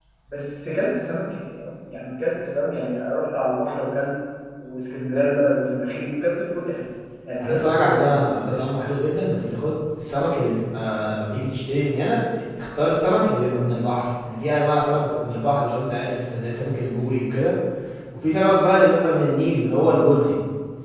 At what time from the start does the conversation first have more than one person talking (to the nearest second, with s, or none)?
7 s